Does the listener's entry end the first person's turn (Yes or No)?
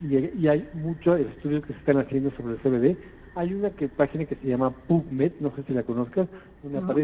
No